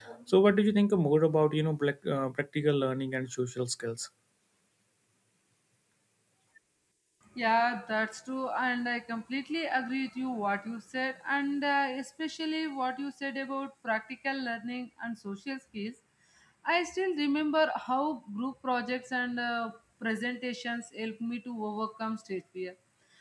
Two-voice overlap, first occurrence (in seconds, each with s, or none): none